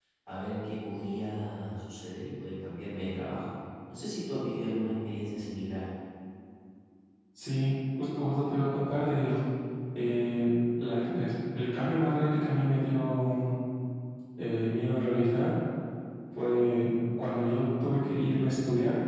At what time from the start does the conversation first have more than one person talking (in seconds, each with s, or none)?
none